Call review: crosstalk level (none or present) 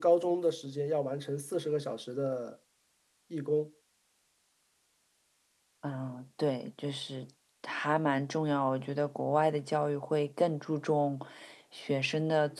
none